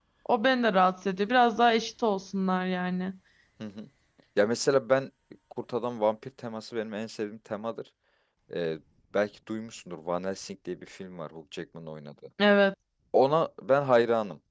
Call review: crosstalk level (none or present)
none